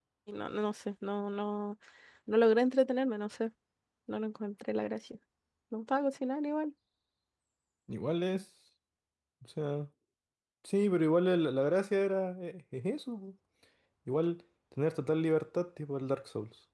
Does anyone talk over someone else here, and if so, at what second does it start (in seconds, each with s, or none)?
none